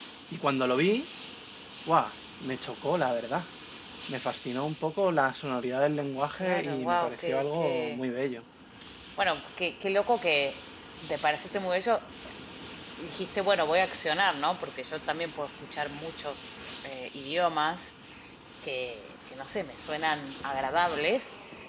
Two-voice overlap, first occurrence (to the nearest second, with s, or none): 6 s